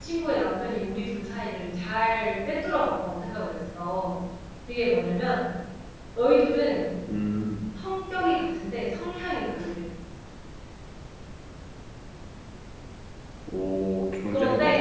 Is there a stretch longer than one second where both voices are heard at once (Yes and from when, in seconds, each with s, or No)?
No